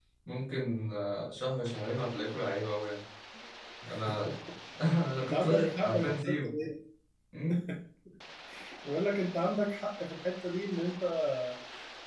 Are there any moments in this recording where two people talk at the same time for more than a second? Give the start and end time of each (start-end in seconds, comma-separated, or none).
5.2-6.5